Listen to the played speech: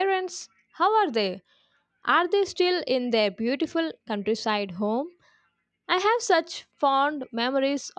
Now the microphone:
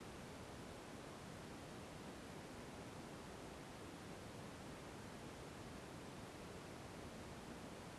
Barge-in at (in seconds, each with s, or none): none